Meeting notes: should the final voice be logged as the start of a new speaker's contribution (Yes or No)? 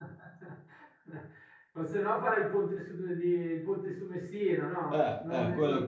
Yes